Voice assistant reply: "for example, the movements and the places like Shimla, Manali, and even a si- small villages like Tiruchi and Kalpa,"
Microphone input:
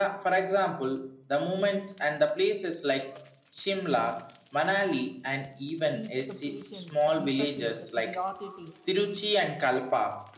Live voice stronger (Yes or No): No